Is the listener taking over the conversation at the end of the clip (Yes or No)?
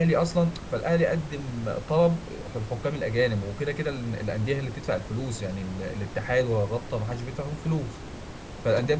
No